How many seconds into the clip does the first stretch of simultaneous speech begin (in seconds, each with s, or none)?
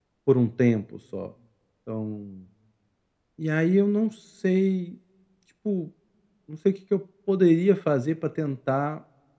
none